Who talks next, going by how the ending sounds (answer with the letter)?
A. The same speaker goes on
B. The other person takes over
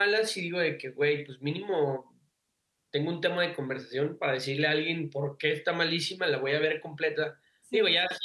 A